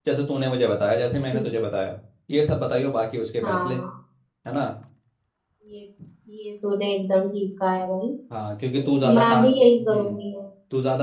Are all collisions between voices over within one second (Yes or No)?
No